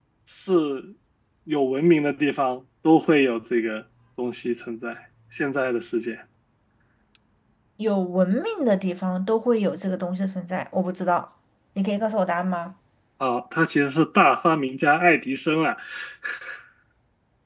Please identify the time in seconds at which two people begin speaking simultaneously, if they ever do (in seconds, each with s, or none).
none